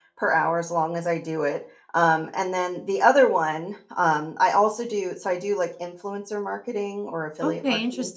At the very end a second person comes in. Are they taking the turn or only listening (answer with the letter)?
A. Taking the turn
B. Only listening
A